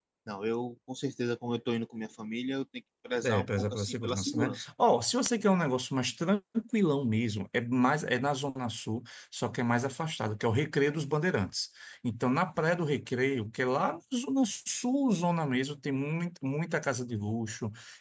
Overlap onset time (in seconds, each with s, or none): 3.2 s